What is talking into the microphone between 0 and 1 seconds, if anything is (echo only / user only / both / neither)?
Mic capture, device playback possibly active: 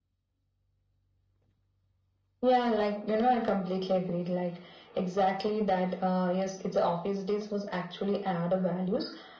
neither